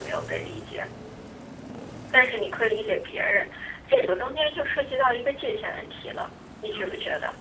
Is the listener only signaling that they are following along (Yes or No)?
No